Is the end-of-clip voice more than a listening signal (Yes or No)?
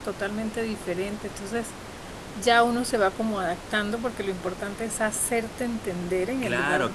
Yes